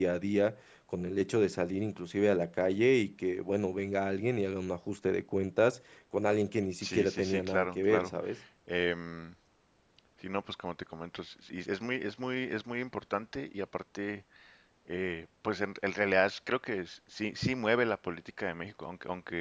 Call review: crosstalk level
present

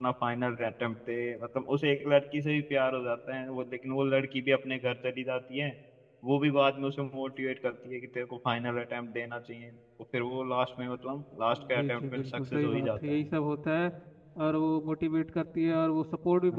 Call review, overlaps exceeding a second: present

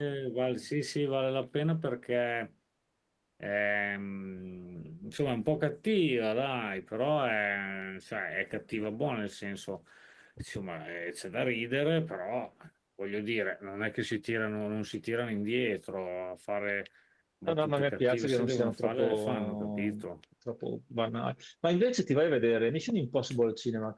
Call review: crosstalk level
present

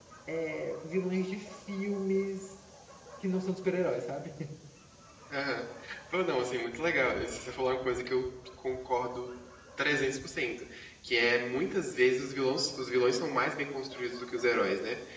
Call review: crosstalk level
none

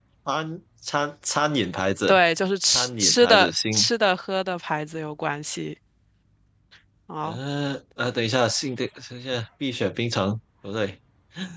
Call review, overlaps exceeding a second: present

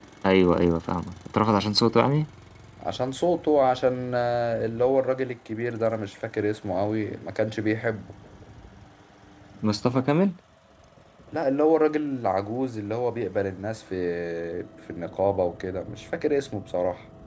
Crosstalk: none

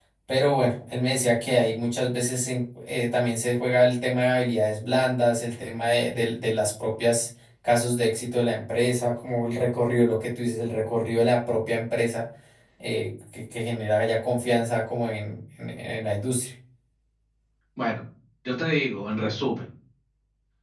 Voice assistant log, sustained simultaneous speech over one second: none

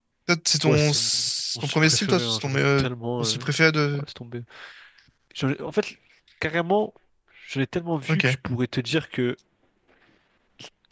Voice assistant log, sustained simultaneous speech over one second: present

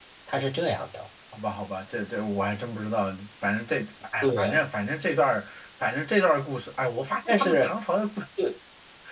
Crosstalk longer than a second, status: none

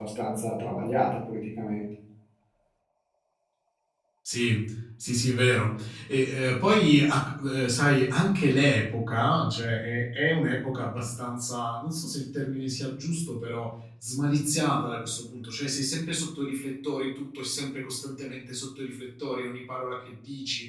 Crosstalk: none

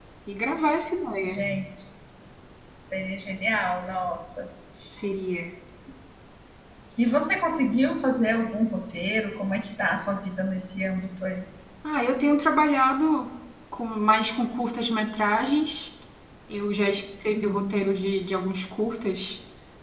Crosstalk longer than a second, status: none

